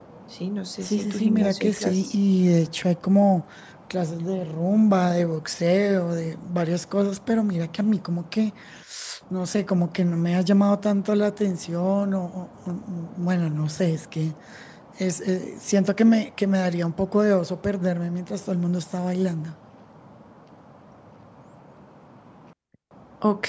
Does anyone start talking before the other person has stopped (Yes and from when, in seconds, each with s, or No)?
Yes, from 0.8 s